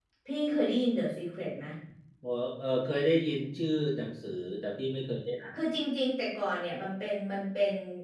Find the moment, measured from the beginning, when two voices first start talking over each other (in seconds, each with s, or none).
none